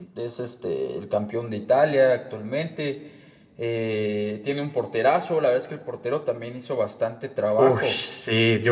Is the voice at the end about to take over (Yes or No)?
Yes